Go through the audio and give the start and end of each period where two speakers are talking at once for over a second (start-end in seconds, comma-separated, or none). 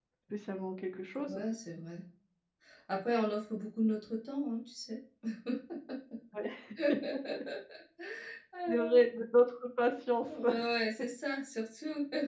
none